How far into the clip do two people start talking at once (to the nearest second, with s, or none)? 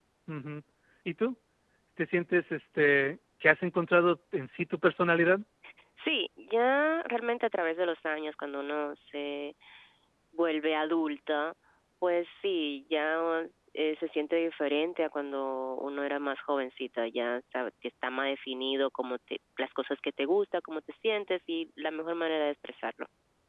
none